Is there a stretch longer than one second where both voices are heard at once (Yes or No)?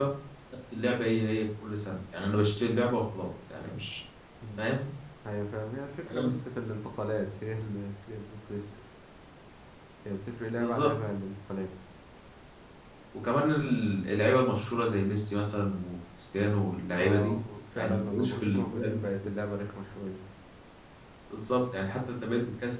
Yes